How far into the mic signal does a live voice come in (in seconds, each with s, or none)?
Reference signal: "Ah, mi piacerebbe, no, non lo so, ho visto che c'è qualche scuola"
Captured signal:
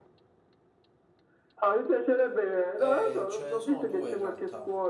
2.7 s